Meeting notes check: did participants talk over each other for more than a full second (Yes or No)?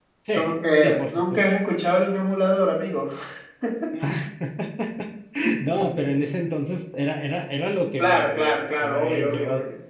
Yes